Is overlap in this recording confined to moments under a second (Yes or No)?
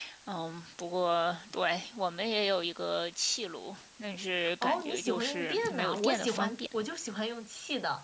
No